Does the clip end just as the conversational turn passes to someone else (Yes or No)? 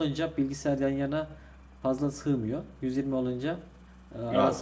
No